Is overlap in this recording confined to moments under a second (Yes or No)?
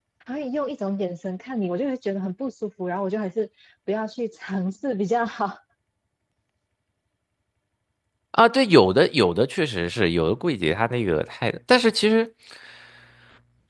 Yes